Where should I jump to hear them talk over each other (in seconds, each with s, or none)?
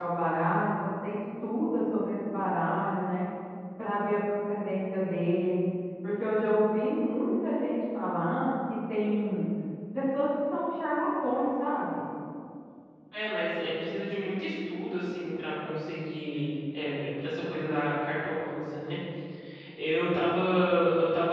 none